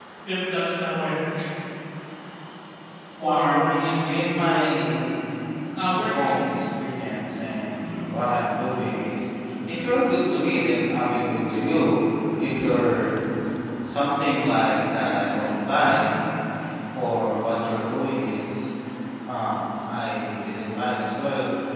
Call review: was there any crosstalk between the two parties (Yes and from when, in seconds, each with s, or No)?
Yes, from 3.2 s